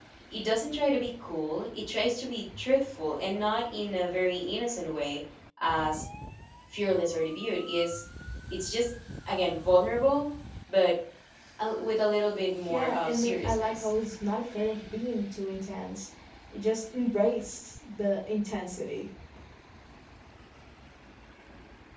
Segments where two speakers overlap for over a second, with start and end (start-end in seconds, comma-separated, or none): 12.7-13.9